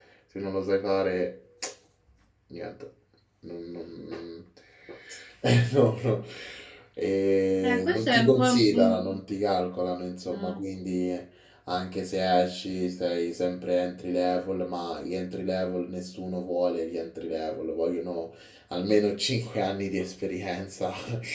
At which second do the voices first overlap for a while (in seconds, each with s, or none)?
7.6 s